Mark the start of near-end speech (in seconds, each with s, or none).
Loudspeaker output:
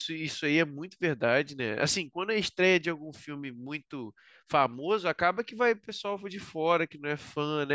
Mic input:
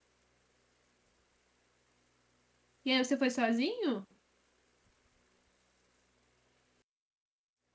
2.8 s